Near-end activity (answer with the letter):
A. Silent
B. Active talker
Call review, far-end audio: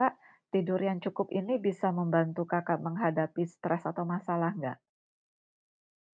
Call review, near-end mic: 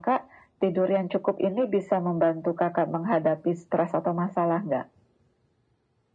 A